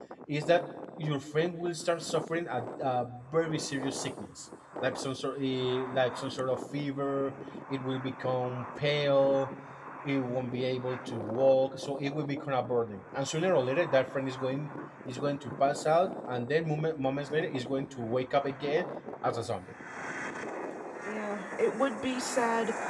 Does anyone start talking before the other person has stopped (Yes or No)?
No